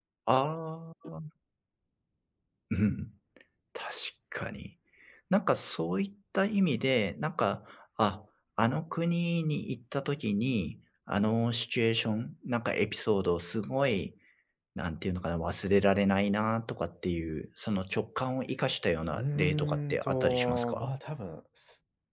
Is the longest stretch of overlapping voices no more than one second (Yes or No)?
No